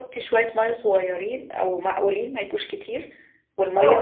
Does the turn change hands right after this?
Yes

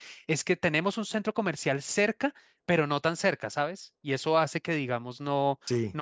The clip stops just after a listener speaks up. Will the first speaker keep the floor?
Yes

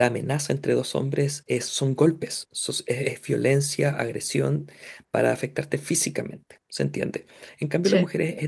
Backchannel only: Yes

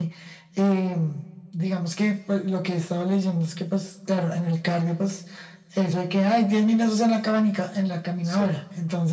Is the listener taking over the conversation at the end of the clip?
No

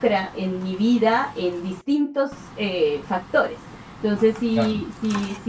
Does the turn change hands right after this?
No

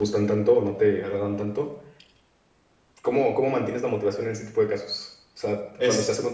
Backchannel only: Yes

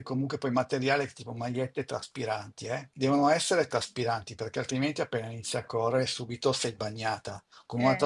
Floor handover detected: No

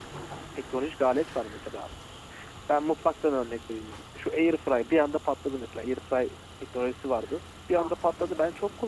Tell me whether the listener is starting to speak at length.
No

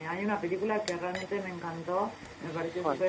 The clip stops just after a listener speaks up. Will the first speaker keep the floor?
Yes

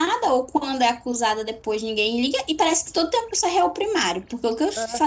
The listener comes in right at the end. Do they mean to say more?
No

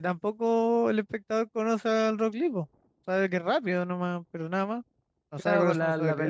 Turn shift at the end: Yes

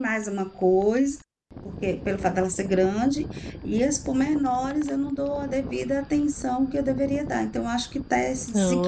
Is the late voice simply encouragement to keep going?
No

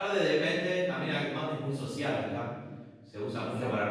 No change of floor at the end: Yes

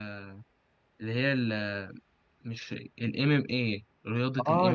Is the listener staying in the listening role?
No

